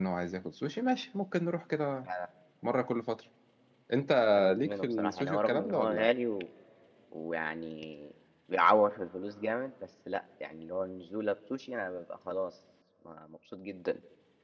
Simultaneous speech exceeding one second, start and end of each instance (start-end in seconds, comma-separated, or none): 4.6-6.1